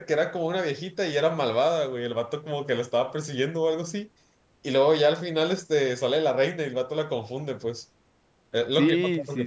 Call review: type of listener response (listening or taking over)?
taking over